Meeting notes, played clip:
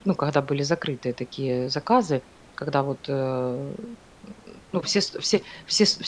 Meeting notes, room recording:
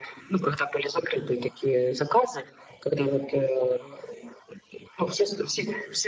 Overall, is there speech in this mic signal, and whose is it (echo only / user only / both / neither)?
echo only